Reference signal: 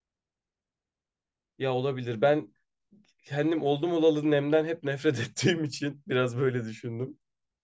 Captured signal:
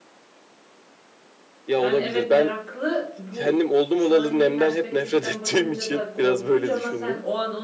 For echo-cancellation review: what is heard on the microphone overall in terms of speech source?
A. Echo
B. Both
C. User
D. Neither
B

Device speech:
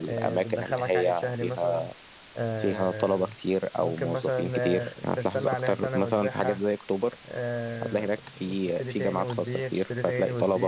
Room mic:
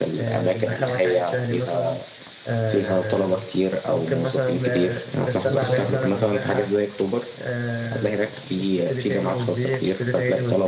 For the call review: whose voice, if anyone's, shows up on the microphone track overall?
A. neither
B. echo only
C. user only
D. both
D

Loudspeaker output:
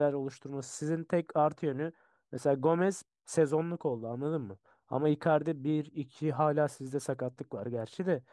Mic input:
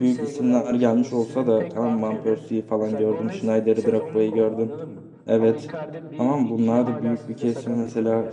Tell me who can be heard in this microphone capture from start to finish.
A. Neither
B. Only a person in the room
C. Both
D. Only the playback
C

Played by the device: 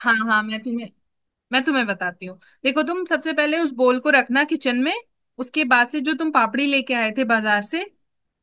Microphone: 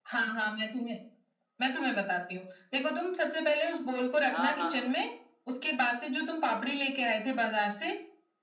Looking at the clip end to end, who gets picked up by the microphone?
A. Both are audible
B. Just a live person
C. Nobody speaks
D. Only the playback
A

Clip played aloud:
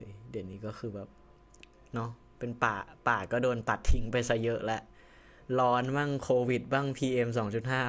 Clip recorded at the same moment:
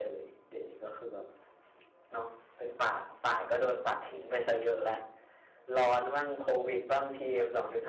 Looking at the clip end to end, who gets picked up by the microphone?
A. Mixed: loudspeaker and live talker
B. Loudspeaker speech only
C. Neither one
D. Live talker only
B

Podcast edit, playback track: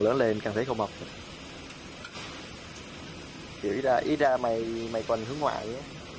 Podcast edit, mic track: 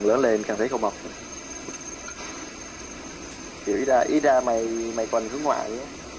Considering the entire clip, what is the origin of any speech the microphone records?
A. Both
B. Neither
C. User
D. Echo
D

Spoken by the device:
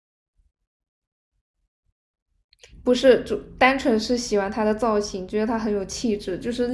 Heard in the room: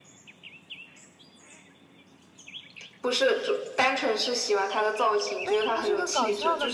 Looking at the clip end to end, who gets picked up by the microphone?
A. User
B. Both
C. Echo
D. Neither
B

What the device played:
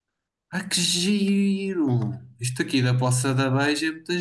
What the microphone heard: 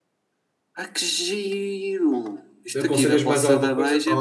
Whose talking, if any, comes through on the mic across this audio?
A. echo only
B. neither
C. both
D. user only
C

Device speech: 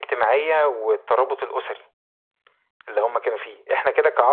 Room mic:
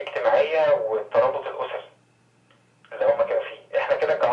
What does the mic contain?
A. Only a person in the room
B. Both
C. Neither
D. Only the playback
D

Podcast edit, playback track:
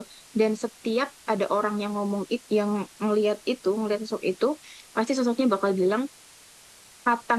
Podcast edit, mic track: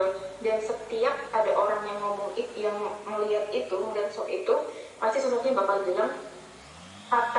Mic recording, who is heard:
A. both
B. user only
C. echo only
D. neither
C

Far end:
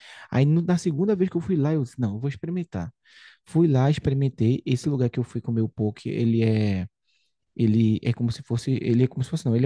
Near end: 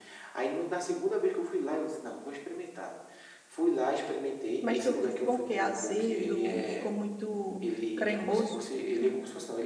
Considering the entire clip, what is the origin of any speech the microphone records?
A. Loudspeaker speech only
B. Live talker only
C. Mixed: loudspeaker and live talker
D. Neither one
C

